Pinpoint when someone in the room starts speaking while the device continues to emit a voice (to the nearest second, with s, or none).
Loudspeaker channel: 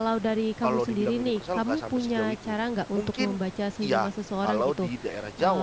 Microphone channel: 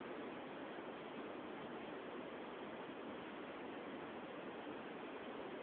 none